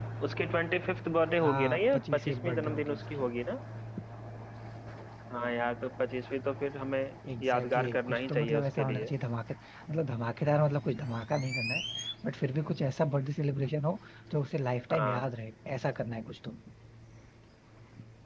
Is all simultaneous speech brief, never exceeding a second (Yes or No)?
No